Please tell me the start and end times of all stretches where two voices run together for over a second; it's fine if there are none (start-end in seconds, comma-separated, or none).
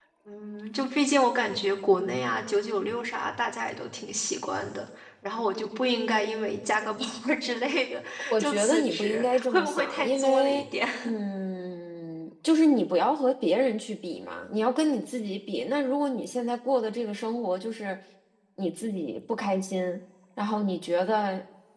8.2-10.6